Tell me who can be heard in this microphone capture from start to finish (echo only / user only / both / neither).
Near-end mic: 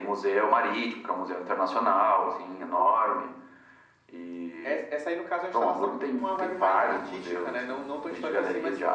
echo only